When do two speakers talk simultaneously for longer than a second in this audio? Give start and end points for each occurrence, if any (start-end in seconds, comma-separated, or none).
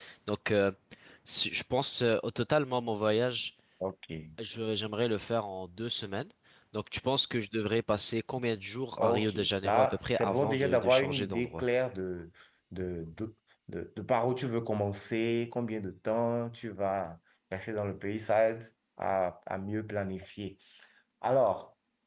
9.0-11.6